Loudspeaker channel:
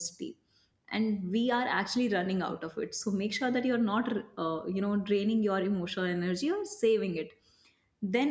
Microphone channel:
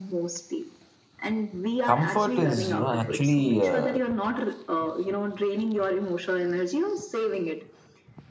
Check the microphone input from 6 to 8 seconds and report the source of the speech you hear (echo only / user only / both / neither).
echo only